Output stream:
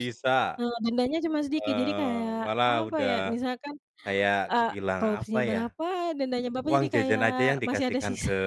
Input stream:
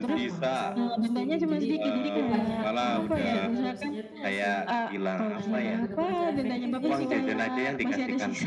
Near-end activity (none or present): present